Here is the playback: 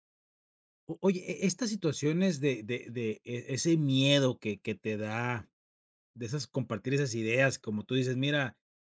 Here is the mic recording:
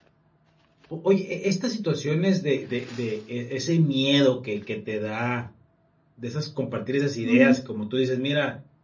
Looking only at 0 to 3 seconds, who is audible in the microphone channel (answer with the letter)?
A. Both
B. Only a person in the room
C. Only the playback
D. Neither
C